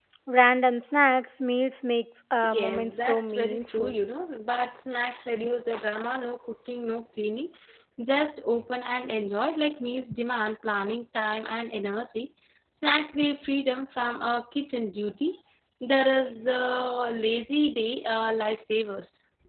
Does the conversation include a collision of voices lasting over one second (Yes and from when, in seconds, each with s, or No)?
Yes, from 2.4 s